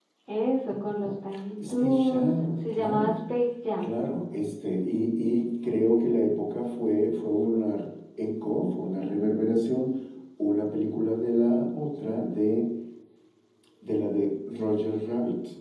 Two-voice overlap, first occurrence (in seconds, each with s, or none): 1.7 s